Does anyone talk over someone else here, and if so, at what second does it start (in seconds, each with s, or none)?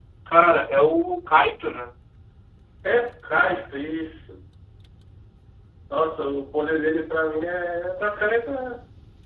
none